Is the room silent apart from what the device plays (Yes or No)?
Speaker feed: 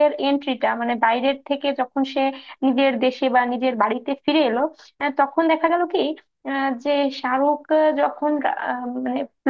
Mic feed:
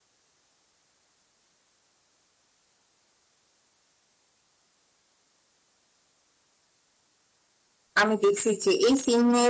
No